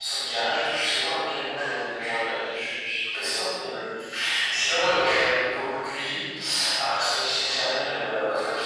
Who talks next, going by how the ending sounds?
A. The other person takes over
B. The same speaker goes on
B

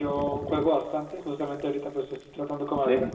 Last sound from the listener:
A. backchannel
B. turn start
A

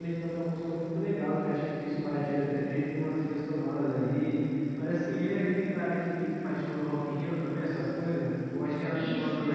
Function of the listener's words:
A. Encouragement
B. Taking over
B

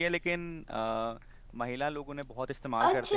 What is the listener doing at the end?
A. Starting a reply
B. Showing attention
A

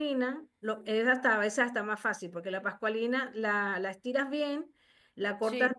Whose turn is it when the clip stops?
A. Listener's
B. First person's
B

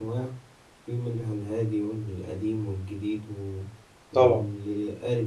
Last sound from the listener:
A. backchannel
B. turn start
A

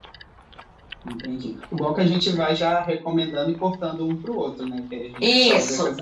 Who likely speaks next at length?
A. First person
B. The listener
B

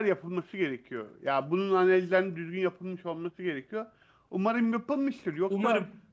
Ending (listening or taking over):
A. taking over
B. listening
B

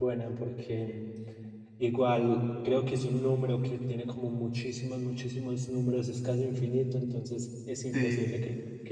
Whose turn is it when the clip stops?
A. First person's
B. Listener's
A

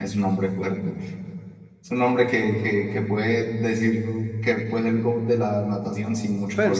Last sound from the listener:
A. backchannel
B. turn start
B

